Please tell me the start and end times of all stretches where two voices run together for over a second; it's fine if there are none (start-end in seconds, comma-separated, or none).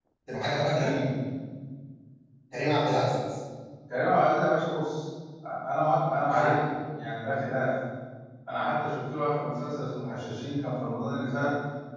none